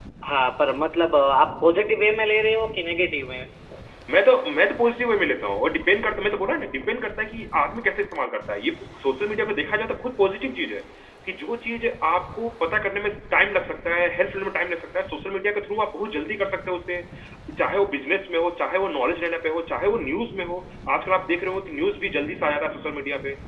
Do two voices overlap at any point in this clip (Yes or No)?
No